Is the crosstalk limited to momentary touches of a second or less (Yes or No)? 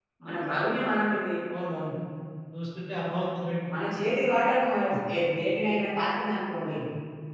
Yes